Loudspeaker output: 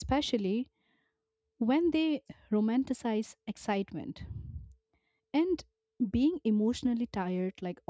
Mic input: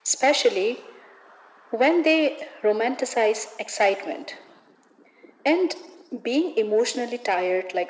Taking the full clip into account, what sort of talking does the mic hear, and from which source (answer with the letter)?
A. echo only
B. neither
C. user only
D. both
A